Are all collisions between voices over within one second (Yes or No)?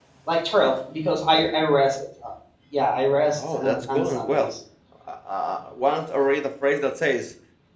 No